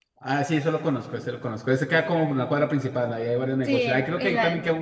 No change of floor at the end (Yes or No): No